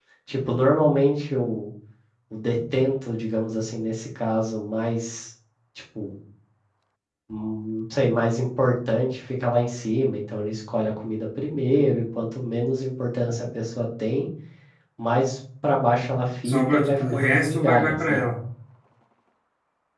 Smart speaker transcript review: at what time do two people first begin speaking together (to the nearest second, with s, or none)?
16 s